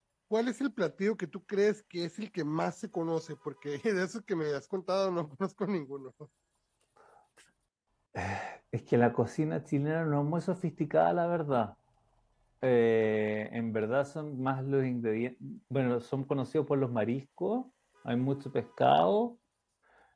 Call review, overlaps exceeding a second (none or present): none